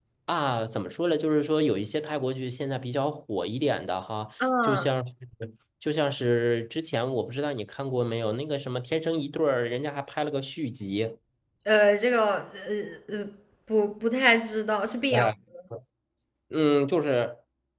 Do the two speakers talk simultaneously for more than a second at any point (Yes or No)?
No